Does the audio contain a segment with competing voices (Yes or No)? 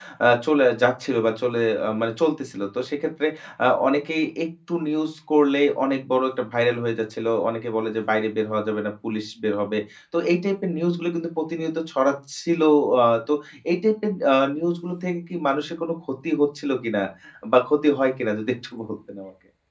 No